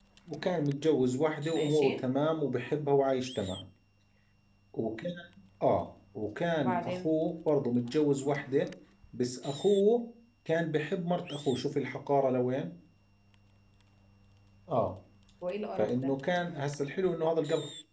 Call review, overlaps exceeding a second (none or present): none